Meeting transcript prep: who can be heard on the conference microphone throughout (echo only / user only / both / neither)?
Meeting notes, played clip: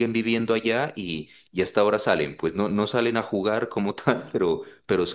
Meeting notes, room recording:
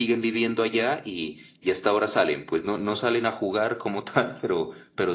echo only